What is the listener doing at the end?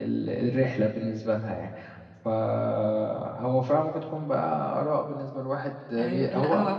taking over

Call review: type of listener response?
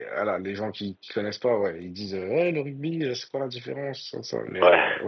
listening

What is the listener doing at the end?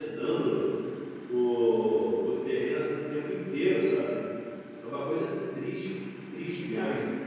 taking over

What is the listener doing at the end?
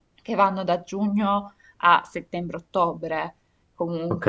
taking over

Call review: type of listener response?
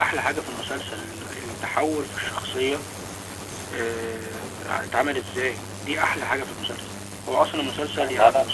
listening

